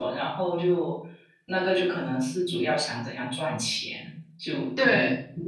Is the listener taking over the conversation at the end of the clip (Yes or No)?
No